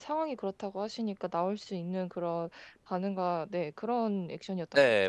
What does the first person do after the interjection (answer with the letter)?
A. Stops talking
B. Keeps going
A